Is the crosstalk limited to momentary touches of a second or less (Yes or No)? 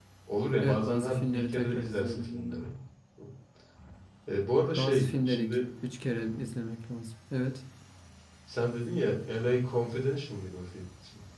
No